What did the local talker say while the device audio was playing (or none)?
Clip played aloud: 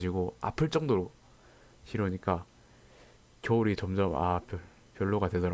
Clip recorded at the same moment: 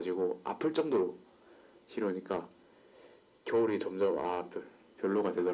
none